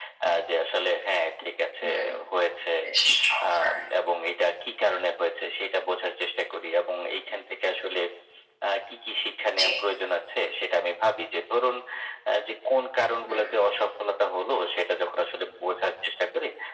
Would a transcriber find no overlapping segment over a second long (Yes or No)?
Yes